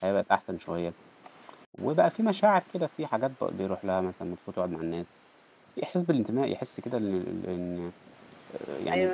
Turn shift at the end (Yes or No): Yes